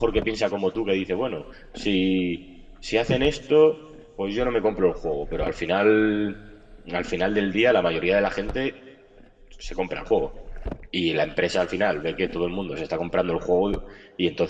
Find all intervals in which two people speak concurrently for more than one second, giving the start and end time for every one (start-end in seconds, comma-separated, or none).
none